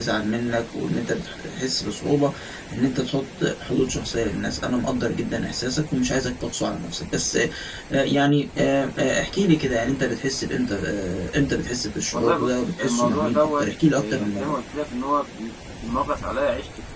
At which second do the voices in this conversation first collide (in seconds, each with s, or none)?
12.1 s